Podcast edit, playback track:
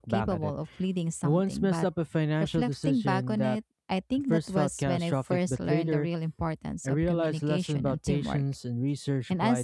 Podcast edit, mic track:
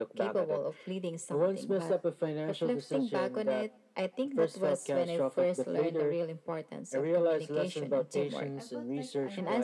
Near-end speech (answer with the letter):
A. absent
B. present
B